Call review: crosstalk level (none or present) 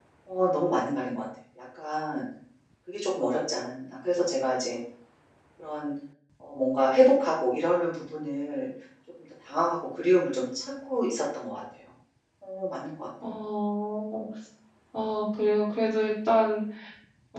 none